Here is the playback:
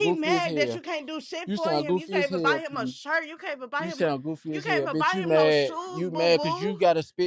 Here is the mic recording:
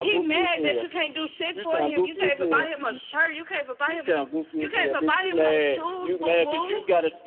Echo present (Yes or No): Yes